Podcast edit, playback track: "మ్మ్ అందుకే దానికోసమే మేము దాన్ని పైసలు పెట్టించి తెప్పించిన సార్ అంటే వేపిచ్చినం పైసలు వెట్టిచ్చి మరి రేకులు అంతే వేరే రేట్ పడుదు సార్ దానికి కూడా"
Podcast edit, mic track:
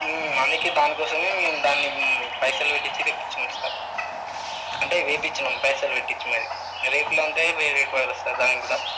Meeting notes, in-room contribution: none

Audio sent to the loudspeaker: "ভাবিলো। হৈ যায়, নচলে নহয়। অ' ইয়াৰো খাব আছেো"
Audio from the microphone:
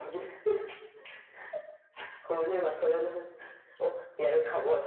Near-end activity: none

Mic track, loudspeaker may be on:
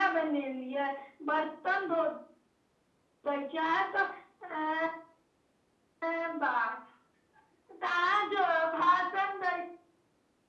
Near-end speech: none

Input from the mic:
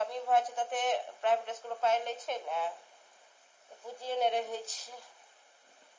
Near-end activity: none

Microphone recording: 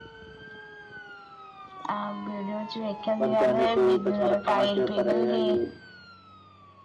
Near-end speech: present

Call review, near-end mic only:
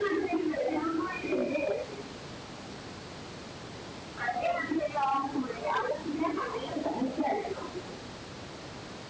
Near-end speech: none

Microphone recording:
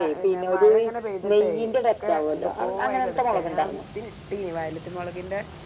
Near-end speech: present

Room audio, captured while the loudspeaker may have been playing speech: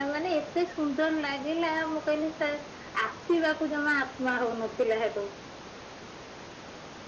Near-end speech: none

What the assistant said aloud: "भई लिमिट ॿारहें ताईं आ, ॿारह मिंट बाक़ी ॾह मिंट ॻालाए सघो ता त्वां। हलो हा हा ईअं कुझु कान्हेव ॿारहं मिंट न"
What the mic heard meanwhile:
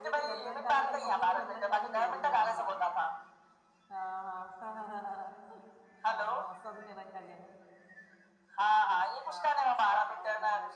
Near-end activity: present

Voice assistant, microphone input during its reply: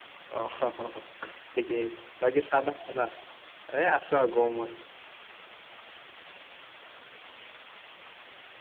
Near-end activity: present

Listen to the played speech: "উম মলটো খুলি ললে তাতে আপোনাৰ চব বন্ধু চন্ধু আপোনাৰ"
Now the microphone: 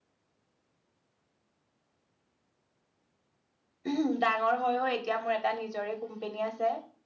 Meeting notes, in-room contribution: present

